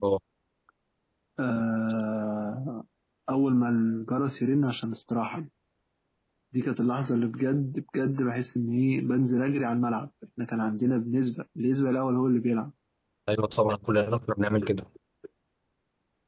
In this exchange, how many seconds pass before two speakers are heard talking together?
none

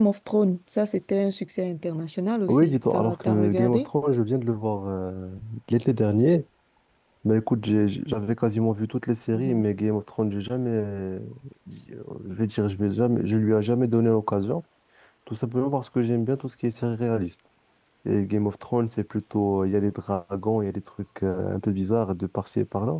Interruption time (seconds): 2.5 s

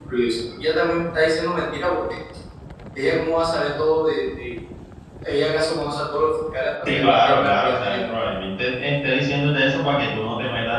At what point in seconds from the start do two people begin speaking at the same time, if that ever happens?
6.8 s

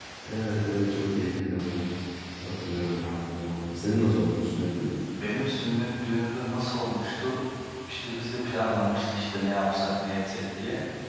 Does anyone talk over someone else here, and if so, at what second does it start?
none

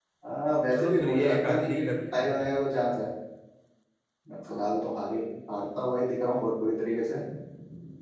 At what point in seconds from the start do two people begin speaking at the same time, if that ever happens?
0.7 s

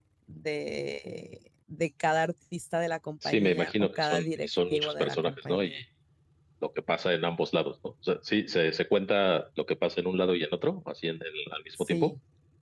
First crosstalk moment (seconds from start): 3.2 s

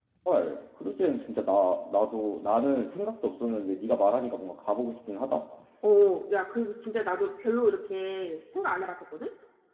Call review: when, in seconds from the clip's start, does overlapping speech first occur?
none

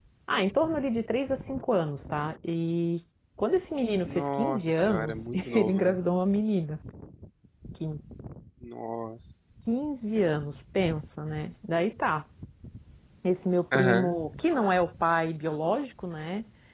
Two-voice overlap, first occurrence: 4.1 s

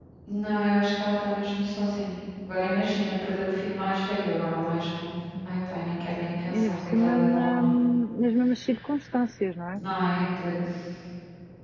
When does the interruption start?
5.3 s

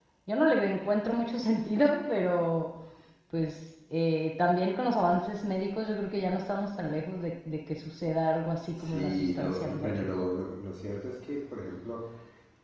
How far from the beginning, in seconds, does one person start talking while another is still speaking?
8.8 s

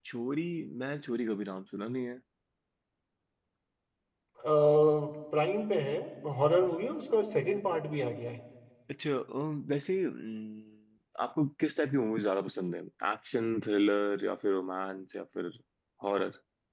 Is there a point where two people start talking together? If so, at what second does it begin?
none

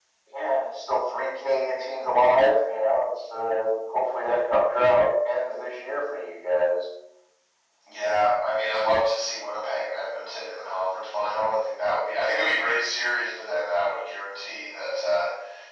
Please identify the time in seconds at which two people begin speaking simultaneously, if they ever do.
none

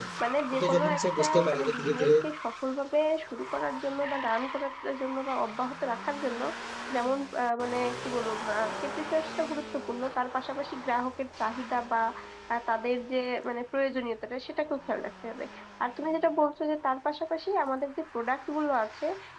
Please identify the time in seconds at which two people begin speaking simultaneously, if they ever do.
0.5 s

